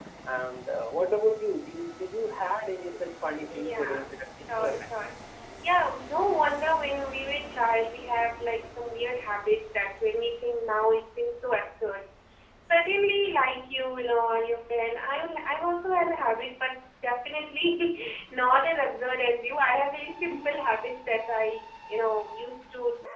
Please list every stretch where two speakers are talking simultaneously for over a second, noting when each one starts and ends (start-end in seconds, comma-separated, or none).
3.5-4.9